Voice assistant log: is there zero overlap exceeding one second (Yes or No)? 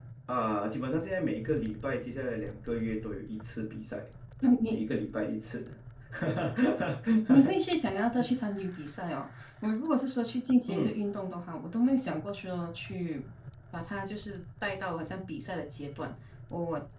Yes